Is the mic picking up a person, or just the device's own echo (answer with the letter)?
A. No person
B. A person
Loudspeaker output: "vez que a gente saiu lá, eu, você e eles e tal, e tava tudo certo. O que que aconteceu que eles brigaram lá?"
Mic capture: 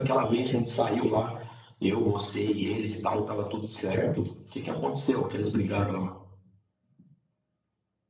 A